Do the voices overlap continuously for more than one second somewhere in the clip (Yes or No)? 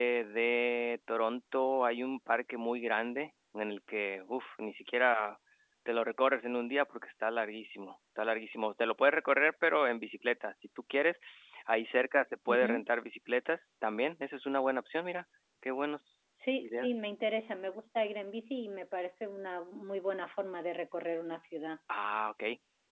No